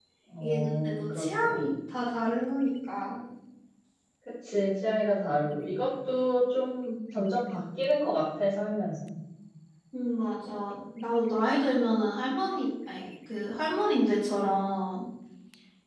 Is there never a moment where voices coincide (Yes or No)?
No